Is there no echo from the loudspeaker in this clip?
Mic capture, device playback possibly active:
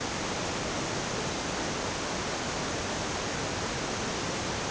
Yes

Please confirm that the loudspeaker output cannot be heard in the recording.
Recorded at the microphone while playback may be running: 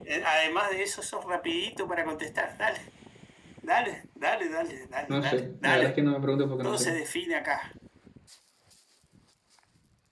No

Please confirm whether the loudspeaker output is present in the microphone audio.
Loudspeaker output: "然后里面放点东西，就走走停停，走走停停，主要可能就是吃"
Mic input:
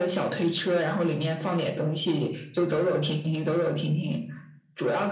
Yes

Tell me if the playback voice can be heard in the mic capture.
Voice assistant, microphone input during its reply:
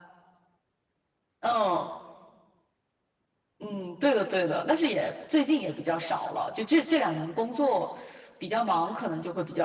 Yes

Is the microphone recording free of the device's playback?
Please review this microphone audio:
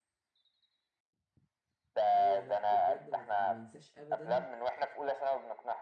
No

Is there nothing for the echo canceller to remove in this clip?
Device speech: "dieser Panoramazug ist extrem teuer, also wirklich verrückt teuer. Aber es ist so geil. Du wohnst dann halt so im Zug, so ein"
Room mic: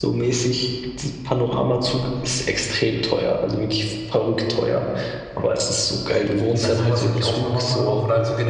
No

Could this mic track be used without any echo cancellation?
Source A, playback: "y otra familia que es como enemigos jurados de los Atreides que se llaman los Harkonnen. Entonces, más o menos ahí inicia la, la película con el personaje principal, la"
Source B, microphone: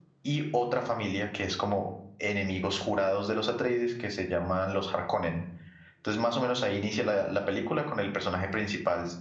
No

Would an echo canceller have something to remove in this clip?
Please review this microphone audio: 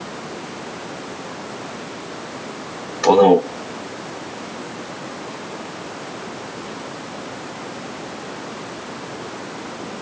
No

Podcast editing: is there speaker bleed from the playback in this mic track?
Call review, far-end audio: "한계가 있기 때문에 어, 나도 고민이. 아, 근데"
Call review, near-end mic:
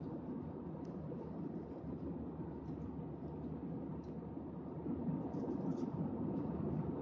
No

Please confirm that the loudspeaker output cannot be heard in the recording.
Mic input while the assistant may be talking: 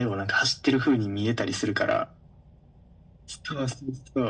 No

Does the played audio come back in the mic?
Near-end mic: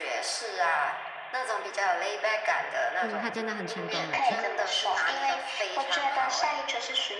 Yes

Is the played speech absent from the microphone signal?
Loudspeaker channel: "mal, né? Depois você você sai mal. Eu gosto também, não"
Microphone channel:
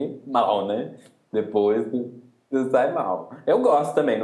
No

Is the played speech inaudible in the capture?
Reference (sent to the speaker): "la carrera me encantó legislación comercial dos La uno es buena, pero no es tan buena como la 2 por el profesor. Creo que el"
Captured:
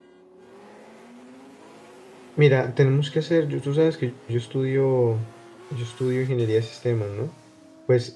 Yes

